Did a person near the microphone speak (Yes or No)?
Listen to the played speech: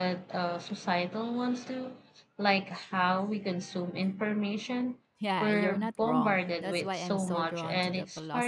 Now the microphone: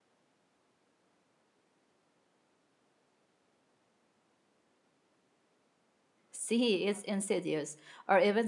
Yes